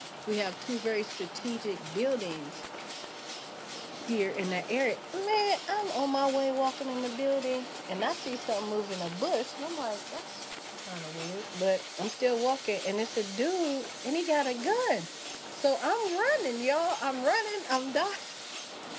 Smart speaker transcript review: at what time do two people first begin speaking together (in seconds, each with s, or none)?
none